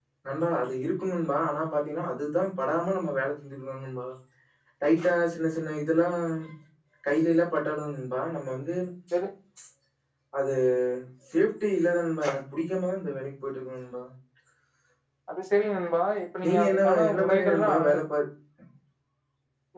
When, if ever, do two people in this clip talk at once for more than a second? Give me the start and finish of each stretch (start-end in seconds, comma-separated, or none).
16.7-18.0